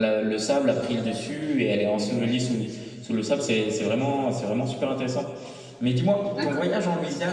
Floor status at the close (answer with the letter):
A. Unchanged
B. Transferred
A